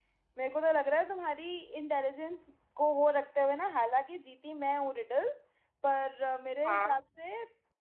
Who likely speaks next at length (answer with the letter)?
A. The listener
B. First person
B